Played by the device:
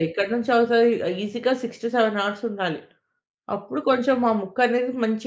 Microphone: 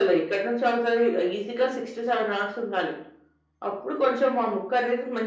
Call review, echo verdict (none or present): present